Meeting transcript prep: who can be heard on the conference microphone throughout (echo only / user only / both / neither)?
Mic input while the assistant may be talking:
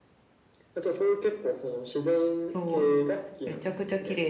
both